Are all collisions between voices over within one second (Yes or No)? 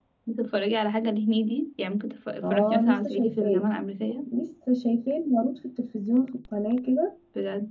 No